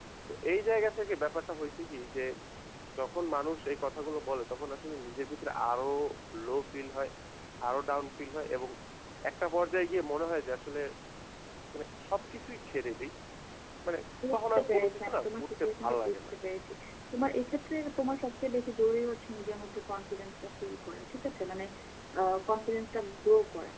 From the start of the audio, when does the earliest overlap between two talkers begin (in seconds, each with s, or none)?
14.3 s